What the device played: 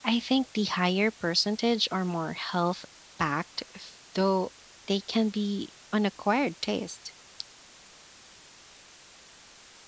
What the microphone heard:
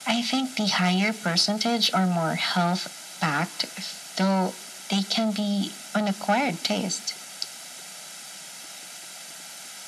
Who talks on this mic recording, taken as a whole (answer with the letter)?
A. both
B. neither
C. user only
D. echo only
D